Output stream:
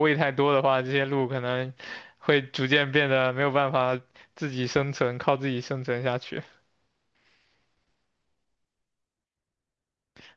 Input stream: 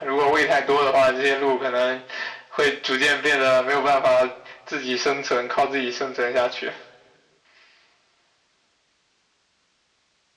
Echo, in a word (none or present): present